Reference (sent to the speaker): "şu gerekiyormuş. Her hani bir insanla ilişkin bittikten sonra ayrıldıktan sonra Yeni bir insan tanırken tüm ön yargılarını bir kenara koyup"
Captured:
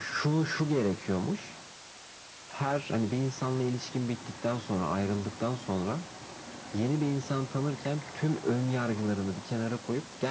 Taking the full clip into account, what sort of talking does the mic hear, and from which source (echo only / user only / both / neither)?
echo only